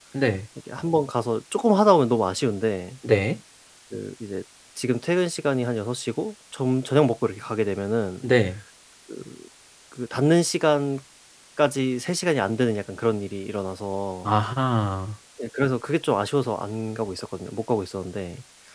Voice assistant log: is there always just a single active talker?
Yes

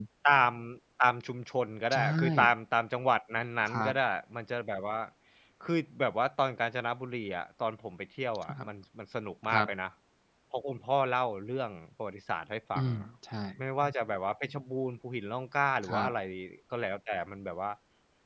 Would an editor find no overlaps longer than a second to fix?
Yes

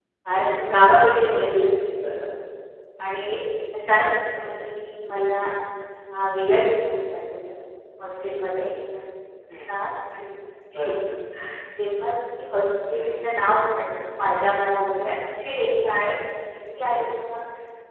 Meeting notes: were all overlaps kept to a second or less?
Yes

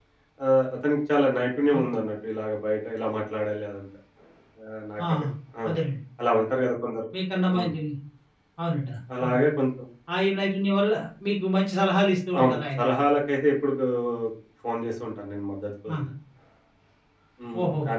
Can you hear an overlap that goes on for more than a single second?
No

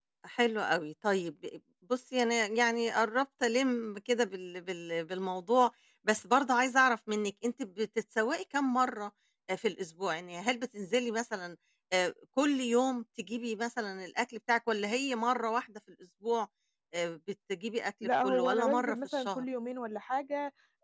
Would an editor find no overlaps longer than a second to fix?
No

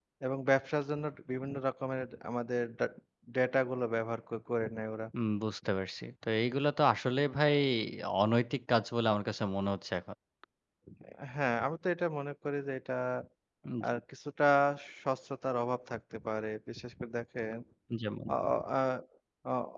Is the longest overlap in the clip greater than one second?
No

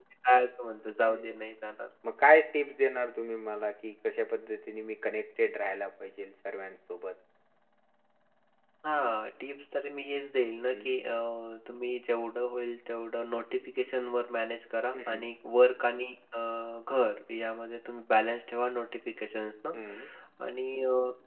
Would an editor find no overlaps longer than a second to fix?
Yes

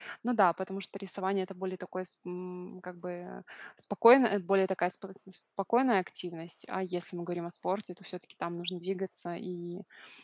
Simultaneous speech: No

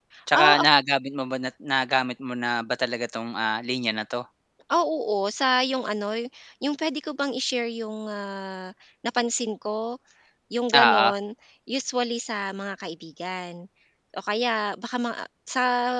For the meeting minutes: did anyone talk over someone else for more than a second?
No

